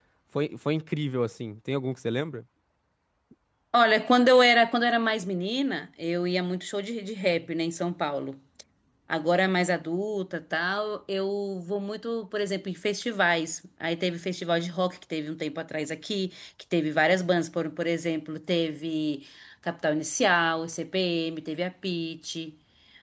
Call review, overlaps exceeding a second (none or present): none